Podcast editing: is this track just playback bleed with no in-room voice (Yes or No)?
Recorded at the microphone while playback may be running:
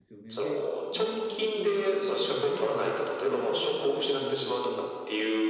No